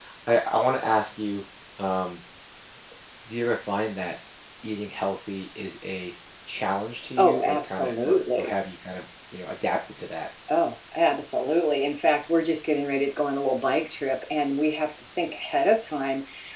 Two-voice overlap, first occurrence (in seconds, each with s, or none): 7.2 s